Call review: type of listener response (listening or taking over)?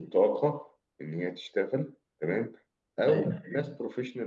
listening